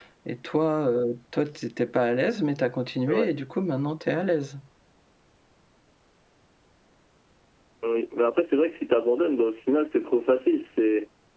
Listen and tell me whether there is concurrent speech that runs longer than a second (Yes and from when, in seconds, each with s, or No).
No